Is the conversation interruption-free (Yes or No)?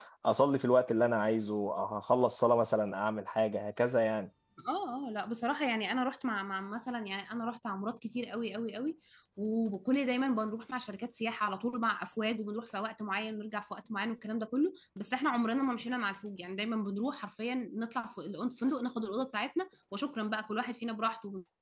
Yes